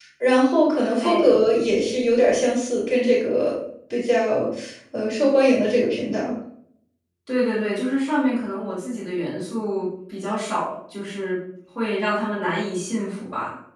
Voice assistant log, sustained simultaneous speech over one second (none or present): none